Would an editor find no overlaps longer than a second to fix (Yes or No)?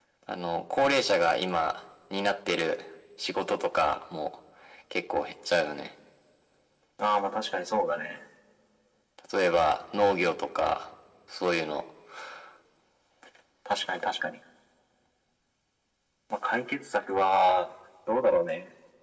Yes